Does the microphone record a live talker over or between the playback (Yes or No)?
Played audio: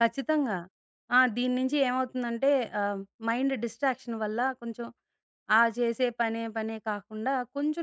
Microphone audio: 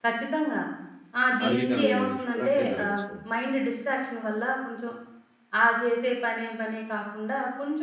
Yes